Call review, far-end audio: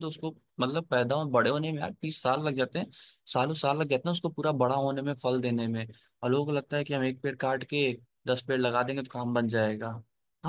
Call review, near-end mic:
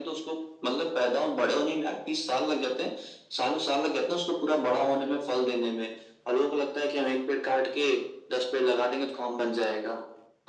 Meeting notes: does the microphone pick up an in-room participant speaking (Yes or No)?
No